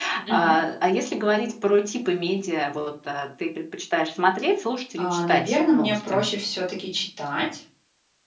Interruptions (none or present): present